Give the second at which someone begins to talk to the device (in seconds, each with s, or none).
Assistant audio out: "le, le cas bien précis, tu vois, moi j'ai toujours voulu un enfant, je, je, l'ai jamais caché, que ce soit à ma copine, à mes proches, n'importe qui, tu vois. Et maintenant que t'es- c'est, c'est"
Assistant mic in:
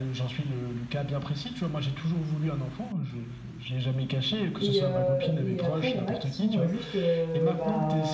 4.6 s